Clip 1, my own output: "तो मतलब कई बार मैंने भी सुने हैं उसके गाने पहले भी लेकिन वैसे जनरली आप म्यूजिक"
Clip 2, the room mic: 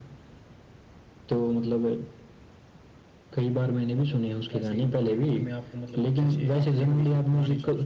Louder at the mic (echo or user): echo